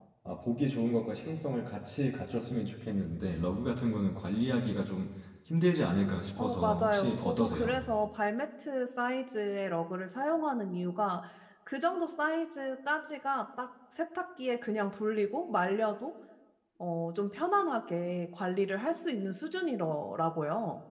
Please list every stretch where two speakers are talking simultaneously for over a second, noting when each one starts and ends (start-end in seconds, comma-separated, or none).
6.4-7.8